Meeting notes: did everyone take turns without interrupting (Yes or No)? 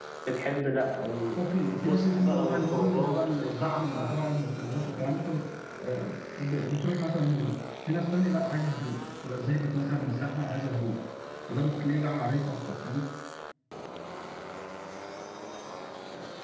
No